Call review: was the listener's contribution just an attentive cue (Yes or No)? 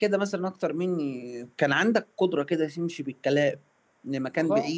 Yes